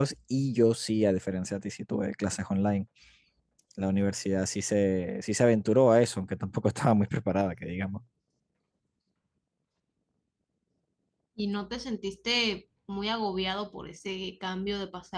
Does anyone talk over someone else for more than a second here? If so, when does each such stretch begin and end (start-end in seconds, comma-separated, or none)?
none